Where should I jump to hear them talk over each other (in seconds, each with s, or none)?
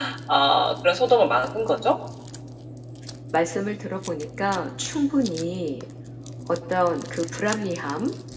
none